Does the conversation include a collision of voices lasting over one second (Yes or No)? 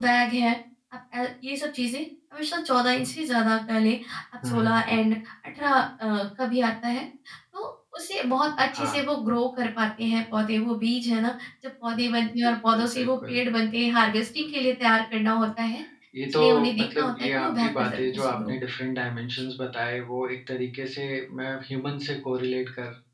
Yes